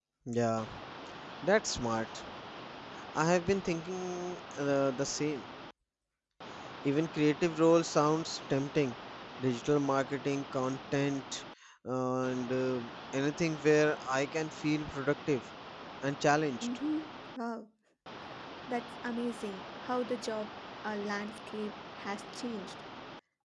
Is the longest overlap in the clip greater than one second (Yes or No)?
No